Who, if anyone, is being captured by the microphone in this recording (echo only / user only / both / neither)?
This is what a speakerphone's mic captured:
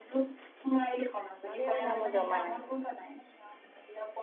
both